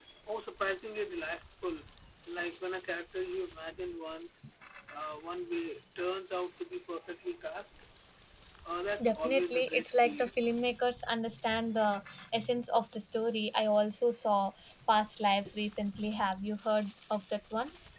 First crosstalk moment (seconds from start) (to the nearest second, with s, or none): 9 s